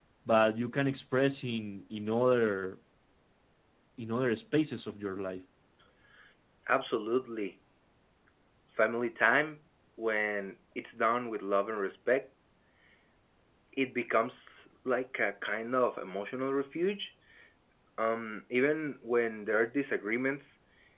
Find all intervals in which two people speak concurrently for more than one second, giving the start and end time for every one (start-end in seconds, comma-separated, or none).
none